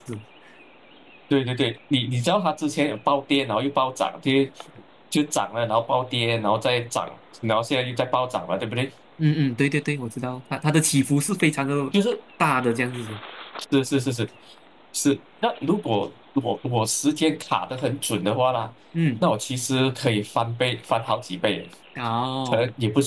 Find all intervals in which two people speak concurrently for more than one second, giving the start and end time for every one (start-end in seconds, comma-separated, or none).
none